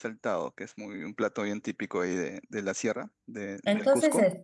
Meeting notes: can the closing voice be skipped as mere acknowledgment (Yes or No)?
No